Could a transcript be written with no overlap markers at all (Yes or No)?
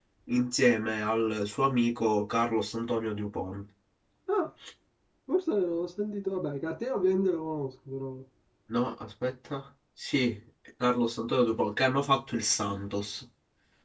Yes